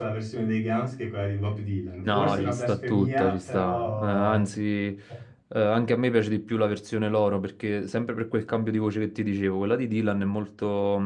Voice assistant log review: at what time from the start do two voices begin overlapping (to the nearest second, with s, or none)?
2 s